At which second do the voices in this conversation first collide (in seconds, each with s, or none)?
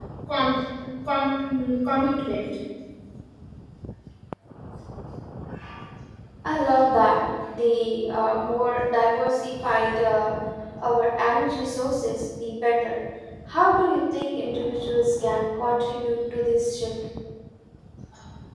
none